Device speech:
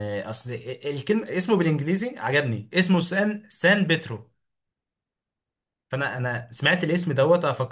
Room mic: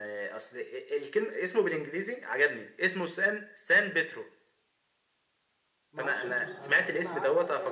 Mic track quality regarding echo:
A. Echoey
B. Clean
A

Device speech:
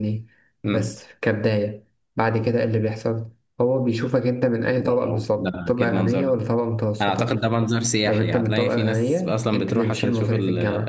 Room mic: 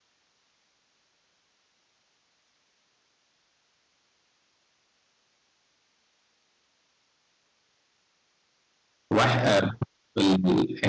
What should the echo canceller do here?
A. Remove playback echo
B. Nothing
B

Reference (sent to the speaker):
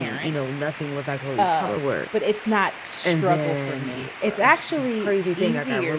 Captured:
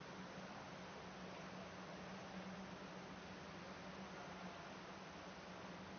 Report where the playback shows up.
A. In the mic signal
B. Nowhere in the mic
B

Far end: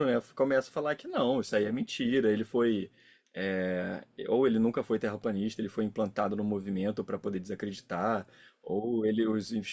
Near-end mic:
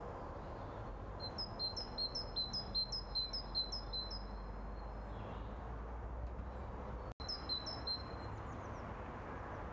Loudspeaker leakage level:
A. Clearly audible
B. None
B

